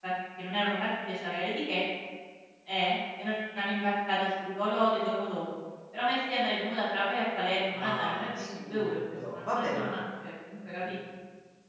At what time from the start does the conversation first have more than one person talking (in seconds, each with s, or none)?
7.7 s